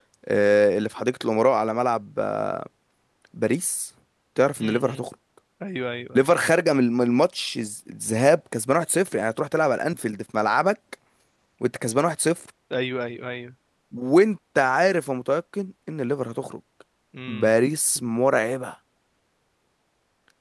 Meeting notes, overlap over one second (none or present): none